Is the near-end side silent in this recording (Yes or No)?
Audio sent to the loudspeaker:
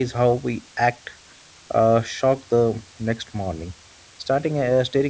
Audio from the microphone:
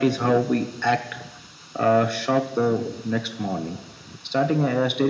Yes